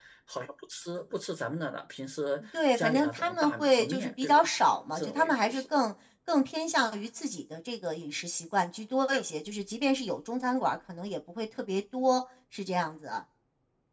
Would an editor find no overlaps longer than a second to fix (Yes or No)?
No